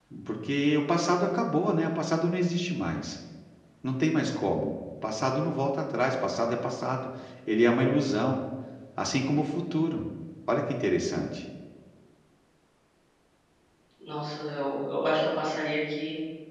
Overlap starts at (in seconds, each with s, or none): none